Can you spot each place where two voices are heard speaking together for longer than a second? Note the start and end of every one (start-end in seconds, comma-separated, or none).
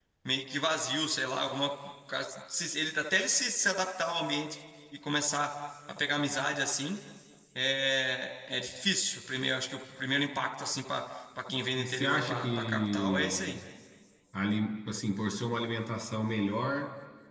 11.8-13.6